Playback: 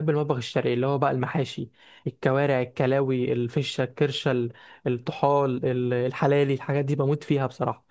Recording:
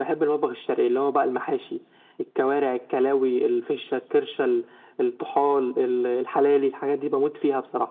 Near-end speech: none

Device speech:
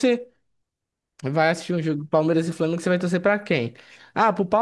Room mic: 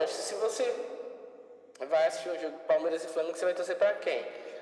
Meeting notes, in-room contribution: none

